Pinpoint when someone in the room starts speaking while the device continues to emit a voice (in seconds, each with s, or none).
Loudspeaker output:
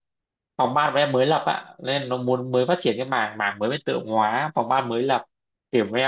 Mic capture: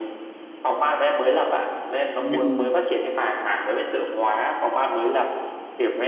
2.1 s